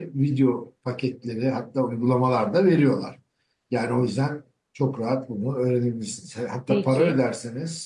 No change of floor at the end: Yes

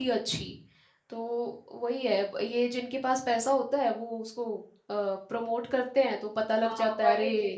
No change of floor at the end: No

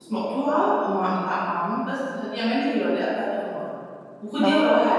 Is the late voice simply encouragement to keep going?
Yes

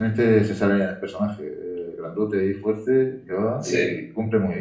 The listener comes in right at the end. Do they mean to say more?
No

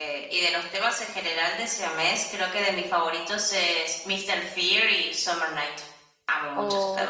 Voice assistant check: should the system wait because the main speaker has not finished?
No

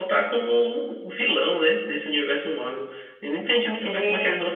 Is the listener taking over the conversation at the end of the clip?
No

